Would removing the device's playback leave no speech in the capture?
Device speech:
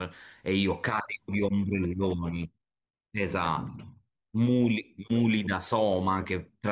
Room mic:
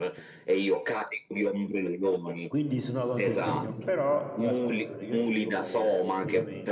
No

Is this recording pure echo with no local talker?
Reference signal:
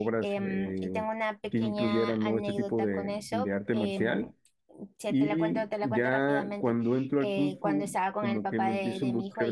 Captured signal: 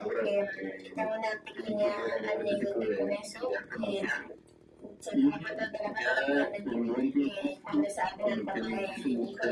No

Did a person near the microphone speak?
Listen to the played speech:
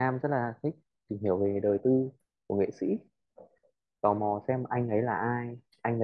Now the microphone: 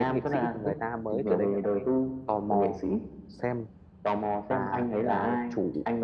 Yes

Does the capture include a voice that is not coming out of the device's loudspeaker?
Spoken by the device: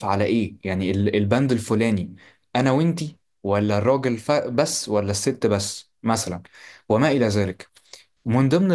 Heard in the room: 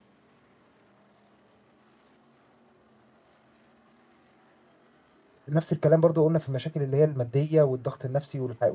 Yes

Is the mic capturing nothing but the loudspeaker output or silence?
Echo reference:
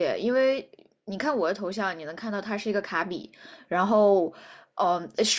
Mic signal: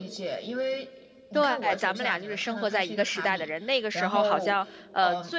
No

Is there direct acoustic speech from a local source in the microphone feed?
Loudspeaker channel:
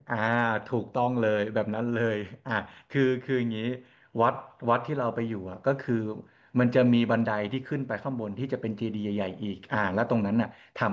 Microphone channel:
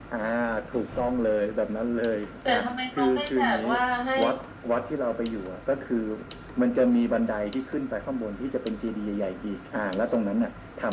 Yes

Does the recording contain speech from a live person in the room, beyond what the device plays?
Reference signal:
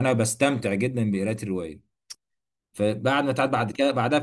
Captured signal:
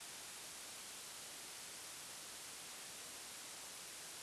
No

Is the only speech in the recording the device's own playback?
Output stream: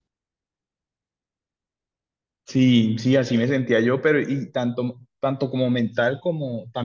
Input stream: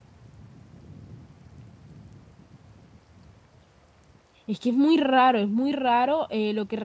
No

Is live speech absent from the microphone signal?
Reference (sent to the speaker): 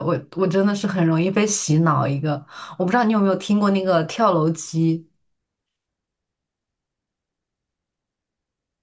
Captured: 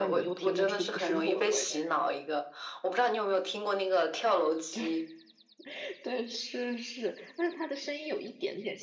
No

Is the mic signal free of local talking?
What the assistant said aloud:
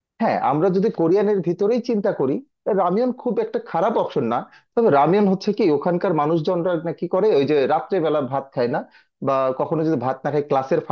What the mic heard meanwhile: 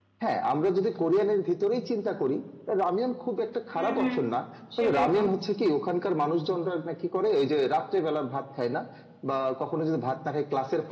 No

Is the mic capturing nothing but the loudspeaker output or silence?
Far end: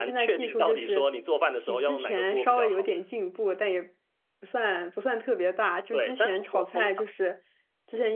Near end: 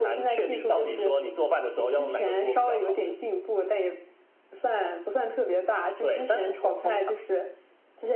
Yes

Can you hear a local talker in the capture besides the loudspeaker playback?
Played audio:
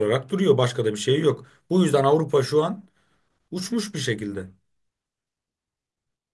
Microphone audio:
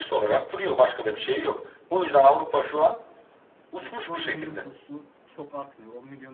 Yes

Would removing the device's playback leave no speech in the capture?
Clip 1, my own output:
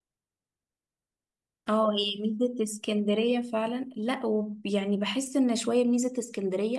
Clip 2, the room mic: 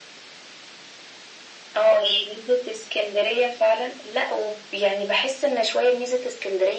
Yes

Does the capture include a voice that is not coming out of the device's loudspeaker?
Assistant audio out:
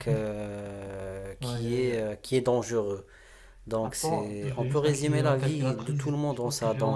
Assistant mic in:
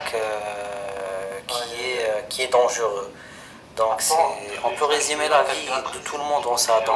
No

